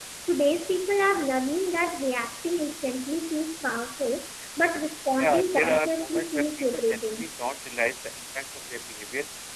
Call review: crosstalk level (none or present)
present